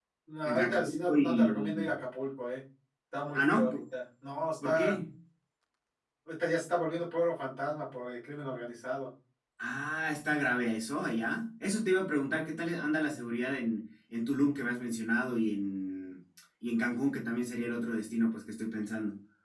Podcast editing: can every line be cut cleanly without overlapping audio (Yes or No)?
No